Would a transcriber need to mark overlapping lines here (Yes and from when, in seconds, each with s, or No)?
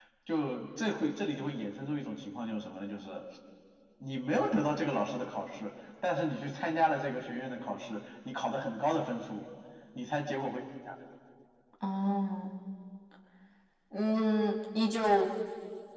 No